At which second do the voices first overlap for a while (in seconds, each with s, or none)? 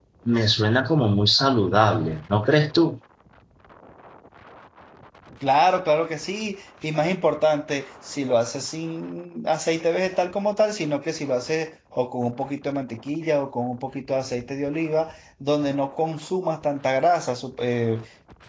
none